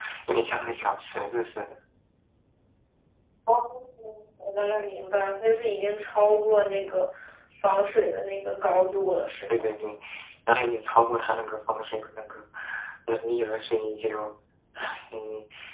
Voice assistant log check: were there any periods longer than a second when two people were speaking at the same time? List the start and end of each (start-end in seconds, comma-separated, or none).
none